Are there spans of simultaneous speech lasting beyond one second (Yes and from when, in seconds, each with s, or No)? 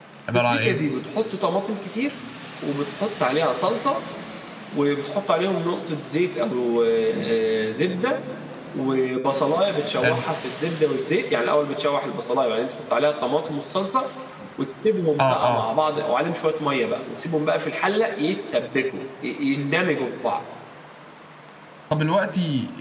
No